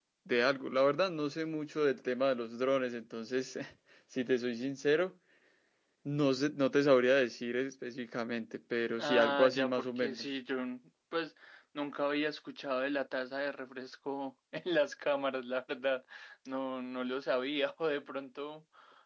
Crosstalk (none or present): present